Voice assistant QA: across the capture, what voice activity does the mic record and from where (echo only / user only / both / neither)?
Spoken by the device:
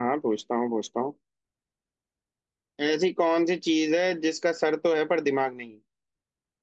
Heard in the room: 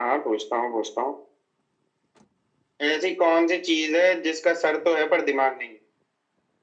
echo only